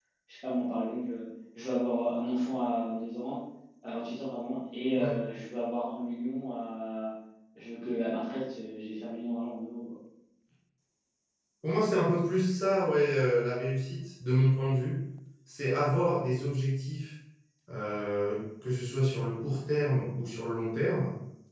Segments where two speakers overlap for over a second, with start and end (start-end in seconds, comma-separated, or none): none